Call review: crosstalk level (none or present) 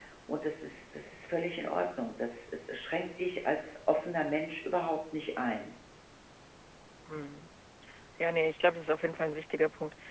none